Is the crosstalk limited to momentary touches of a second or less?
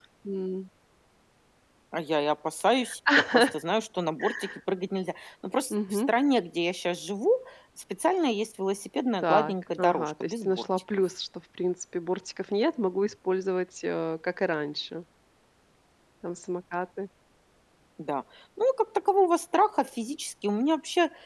No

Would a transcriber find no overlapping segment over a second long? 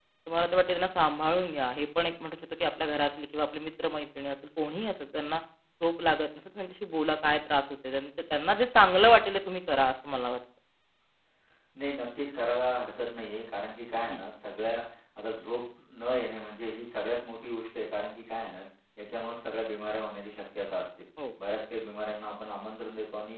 Yes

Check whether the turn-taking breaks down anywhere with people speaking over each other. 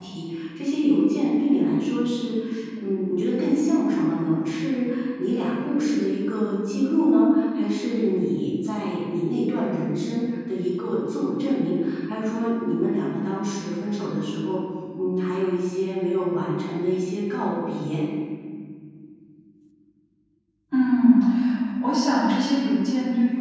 No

